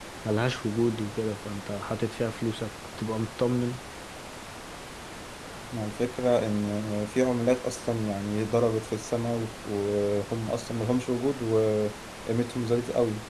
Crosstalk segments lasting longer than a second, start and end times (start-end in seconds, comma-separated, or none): none